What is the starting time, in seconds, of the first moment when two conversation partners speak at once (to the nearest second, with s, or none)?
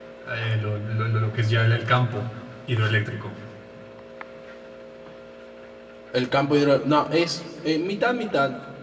none